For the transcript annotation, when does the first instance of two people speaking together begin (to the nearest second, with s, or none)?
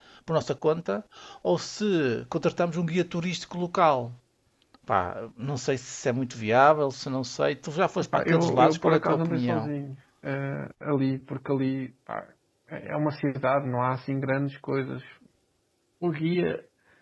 8 s